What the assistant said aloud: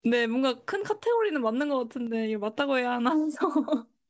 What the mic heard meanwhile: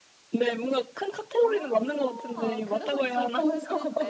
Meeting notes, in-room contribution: present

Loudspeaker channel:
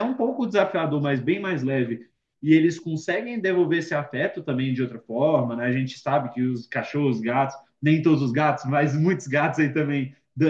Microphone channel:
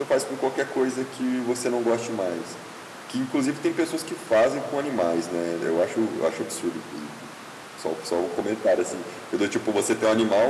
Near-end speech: present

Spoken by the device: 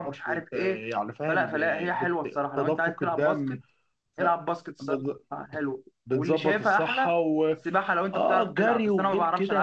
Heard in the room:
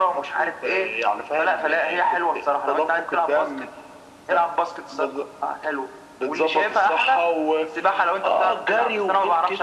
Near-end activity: none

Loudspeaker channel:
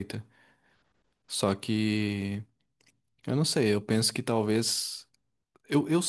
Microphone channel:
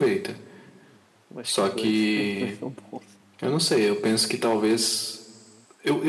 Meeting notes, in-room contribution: present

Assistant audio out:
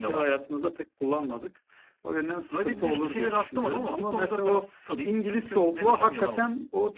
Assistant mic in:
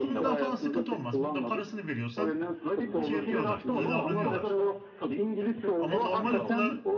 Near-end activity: present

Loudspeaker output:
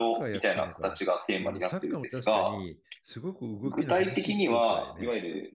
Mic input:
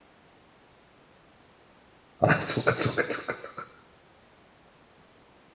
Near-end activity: present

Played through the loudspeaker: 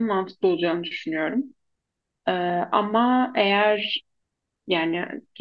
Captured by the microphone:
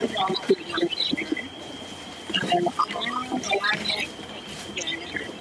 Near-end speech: none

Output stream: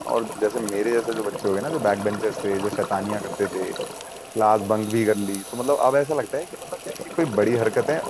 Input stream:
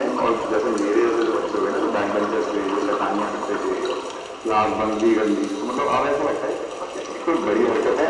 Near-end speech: none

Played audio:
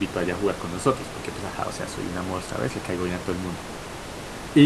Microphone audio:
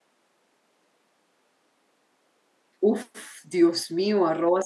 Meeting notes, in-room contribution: present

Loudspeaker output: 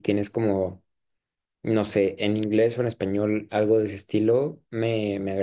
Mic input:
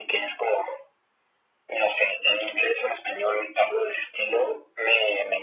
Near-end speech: none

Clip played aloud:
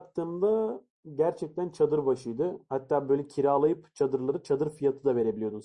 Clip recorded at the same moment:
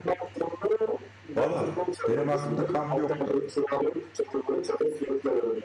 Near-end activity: present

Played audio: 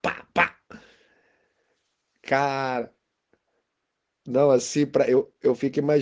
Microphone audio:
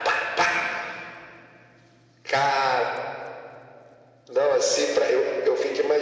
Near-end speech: none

